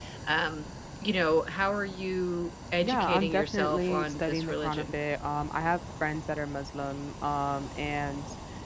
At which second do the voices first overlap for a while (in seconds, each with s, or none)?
2.8 s